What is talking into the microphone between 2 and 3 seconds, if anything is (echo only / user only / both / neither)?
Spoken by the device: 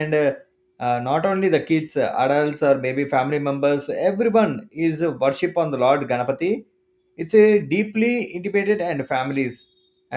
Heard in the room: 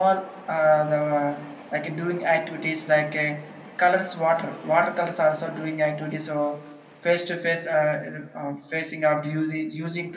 user only